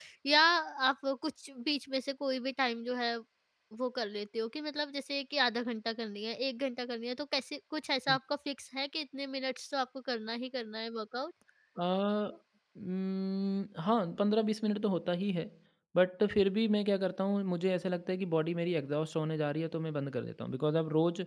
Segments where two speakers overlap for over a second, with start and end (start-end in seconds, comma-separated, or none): none